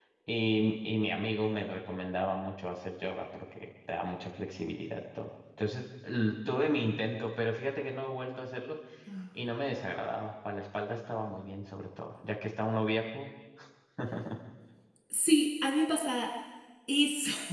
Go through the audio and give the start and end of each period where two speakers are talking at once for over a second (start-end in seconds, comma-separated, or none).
none